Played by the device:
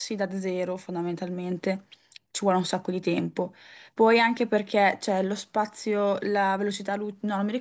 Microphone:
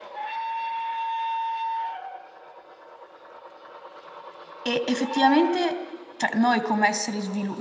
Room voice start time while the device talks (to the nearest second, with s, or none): 5 s